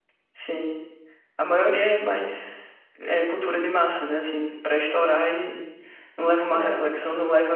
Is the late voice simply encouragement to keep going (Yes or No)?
Yes